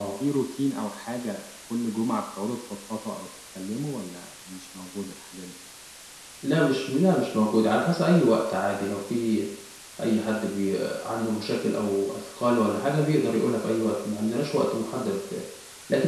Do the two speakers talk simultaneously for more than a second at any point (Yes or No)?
No